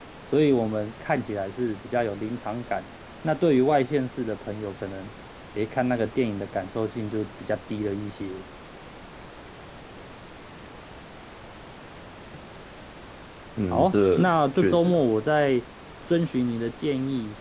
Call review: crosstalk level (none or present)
present